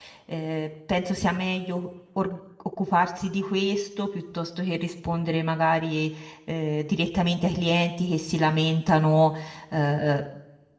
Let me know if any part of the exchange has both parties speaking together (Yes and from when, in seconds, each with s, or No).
No